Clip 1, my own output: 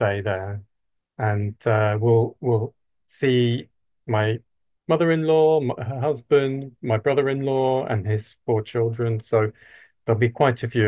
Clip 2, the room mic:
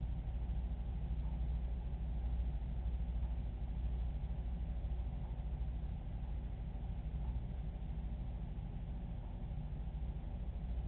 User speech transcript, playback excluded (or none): none